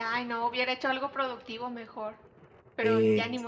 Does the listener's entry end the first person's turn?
Yes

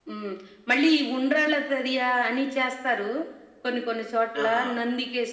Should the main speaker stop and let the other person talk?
No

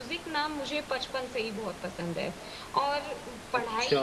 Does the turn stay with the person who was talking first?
Yes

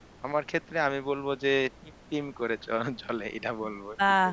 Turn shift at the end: Yes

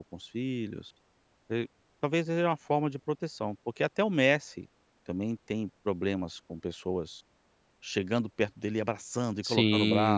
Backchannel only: No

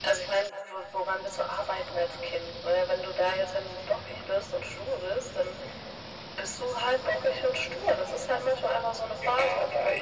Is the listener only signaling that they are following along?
No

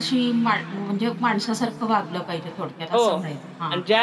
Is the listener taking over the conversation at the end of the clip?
Yes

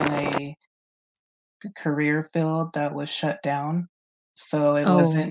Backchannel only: Yes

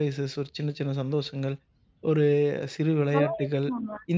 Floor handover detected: No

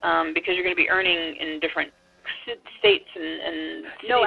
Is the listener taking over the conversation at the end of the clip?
Yes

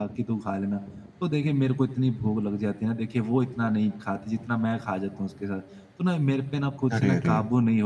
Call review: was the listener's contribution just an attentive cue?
Yes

